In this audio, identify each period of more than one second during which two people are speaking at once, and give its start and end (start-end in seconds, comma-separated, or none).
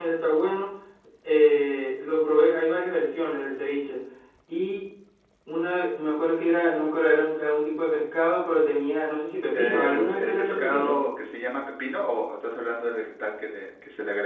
9.5-11.0